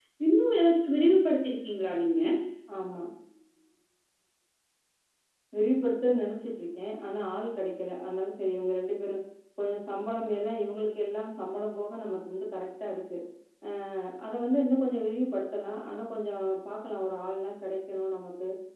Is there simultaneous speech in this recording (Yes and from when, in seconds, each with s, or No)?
No